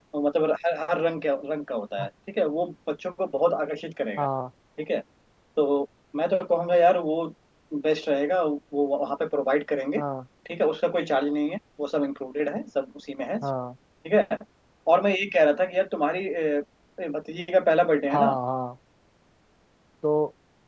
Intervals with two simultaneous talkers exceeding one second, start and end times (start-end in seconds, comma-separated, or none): none